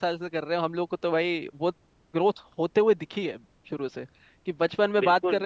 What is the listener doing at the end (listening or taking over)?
listening